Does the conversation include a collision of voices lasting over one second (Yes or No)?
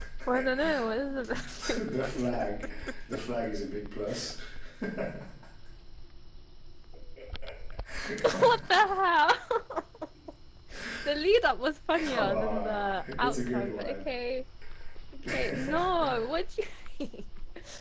Yes